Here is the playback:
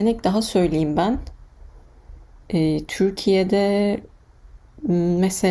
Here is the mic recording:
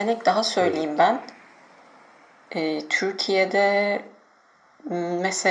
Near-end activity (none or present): present